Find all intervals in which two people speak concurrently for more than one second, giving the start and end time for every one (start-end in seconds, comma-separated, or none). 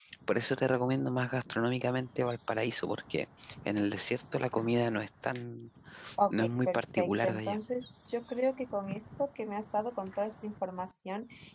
6.3-7.6